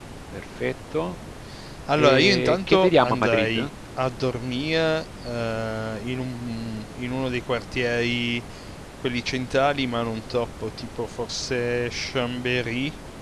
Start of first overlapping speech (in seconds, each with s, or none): 2.0 s